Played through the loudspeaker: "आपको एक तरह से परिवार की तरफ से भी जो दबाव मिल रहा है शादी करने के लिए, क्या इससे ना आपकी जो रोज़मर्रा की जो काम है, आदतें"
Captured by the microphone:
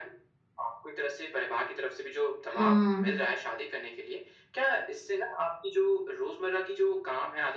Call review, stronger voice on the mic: user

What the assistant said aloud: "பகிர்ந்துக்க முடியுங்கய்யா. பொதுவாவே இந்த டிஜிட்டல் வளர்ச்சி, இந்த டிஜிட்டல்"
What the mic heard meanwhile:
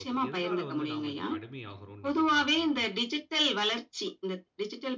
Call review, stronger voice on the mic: echo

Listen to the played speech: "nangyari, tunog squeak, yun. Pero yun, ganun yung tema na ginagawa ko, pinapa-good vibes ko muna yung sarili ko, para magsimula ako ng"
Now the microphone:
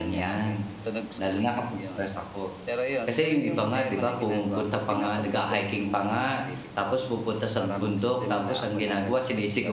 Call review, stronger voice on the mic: user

